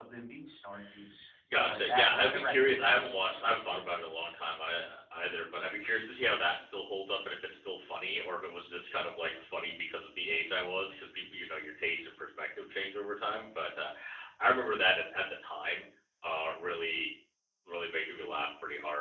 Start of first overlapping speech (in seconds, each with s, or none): 1.5 s